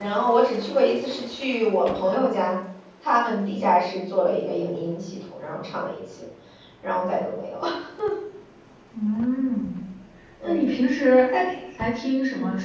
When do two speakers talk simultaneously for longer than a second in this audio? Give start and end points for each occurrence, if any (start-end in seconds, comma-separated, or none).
none